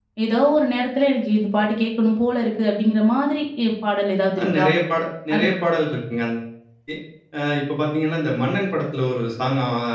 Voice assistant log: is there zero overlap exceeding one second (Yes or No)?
Yes